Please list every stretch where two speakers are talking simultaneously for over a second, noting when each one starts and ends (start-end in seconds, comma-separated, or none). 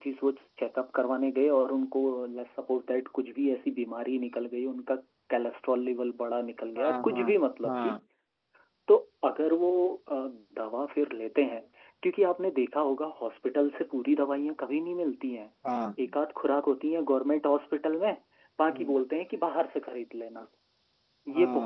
none